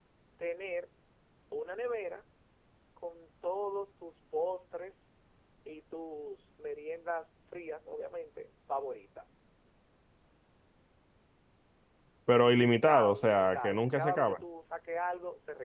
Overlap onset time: 12.4 s

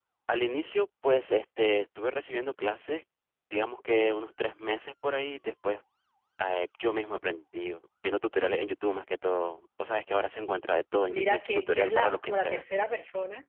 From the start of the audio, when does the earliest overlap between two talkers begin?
11.1 s

